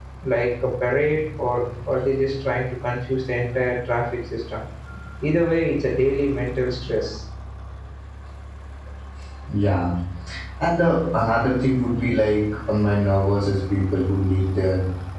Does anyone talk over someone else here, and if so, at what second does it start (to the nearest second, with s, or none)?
none